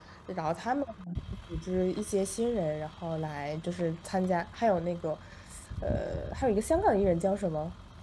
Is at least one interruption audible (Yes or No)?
No